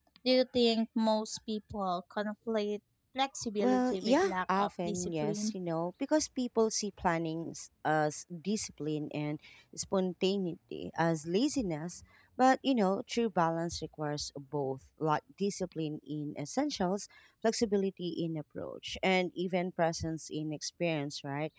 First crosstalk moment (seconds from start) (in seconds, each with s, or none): 3.6 s